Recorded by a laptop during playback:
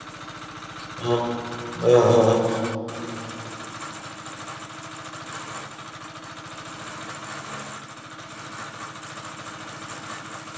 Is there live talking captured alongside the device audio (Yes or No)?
Yes